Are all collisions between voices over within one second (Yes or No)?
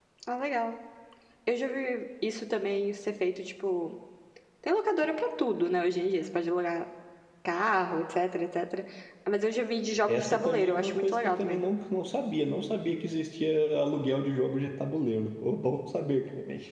No